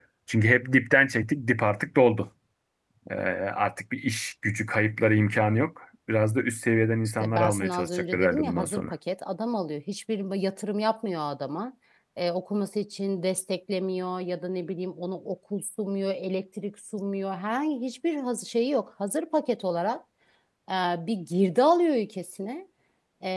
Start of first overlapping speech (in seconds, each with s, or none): 7.0 s